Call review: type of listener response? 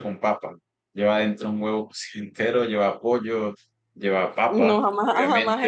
taking over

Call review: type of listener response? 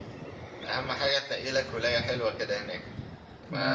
listening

